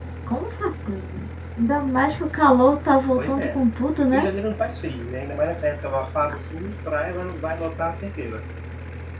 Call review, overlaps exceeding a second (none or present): none